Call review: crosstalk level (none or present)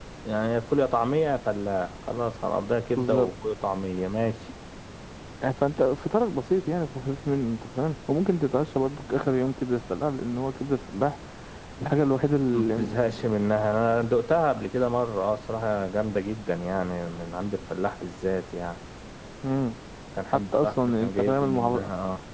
present